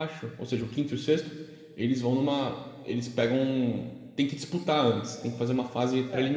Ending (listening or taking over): taking over